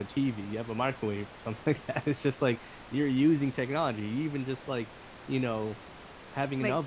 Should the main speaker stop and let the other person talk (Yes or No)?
No